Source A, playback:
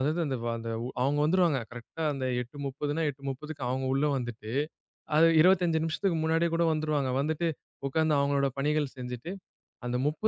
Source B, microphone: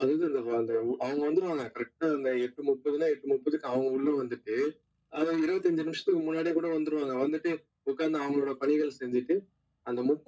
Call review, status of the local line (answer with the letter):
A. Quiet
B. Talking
A